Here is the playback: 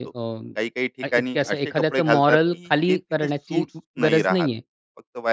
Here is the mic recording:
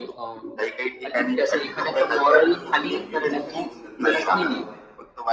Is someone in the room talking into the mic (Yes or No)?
Yes